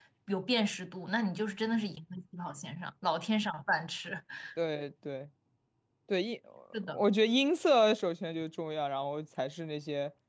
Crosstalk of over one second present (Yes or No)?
No